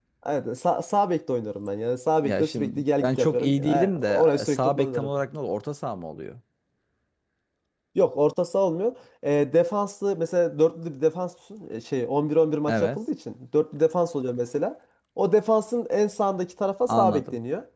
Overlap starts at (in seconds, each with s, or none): 2.2 s